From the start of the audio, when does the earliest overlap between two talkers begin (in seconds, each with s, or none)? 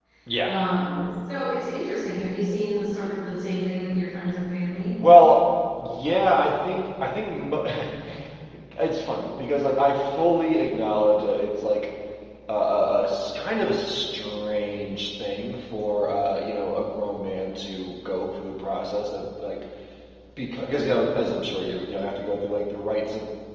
none